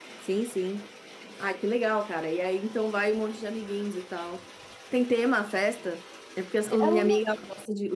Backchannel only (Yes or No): Yes